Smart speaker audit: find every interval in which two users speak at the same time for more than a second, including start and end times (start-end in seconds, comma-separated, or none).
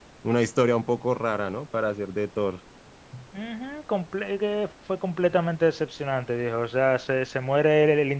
none